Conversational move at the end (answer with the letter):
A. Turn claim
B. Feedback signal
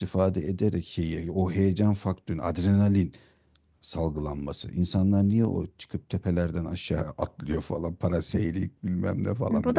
A